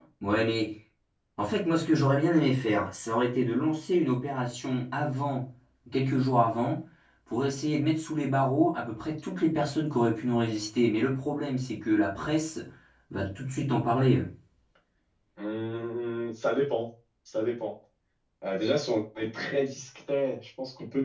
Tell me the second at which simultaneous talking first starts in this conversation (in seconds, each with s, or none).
none